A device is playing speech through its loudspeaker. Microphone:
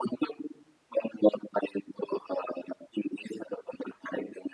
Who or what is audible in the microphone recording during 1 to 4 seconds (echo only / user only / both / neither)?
echo only